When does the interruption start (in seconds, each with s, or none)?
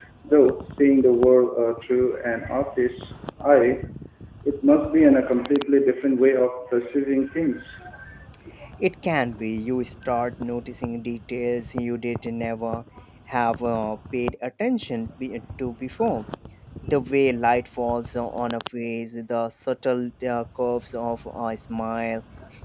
none